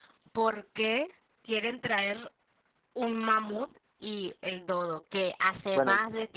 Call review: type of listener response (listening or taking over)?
listening